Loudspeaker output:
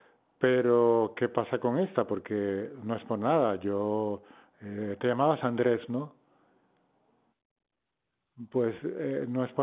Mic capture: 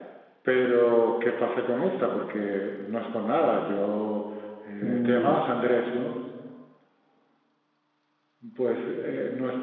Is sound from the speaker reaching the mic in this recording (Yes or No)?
Yes